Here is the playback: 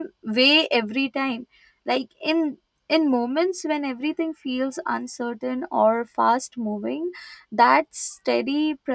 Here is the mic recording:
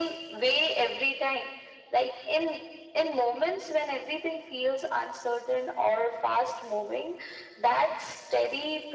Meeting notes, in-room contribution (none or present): none